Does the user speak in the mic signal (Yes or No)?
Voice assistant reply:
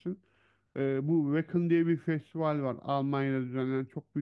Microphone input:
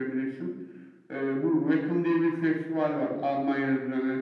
No